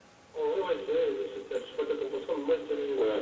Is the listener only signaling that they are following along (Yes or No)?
No